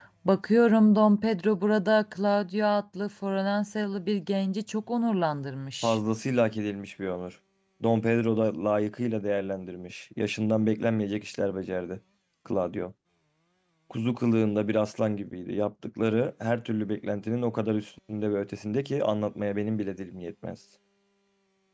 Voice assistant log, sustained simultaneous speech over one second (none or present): none